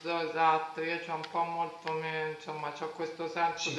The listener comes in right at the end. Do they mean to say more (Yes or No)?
No